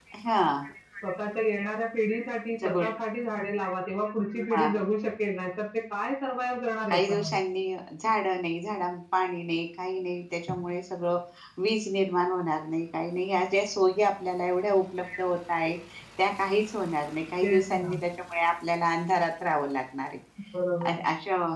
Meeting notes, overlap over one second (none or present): none